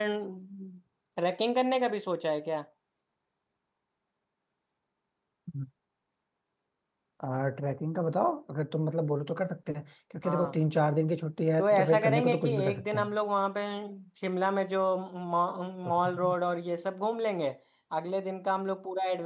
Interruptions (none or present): present